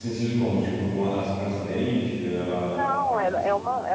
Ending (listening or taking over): taking over